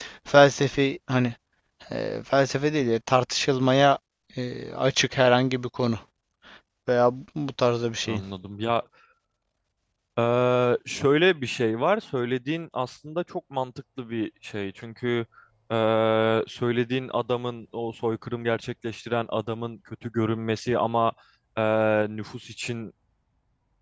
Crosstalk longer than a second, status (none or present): none